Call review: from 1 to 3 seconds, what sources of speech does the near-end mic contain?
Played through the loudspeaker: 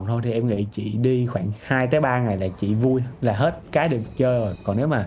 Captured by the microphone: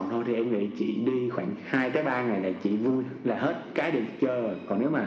echo only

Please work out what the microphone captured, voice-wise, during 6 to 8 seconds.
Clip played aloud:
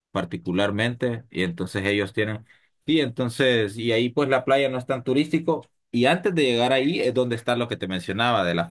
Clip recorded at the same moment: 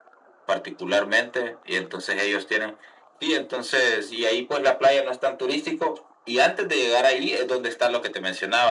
echo only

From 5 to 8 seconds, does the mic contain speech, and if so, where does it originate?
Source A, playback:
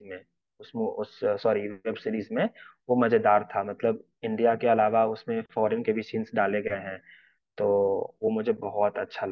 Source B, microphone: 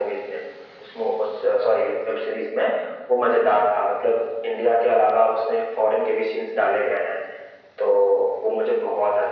echo only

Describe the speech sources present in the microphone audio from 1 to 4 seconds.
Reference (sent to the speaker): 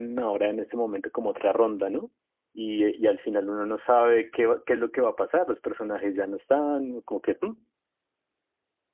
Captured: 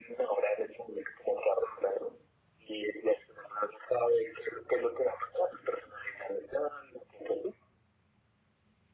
echo only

